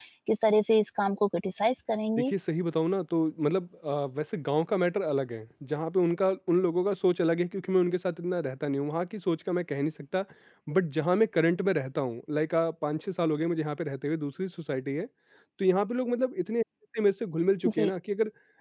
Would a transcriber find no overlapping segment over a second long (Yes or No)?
Yes